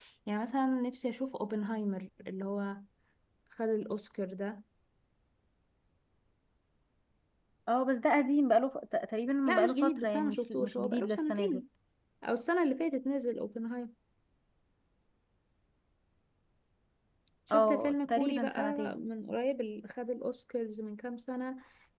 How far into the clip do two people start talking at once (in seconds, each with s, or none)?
9.4 s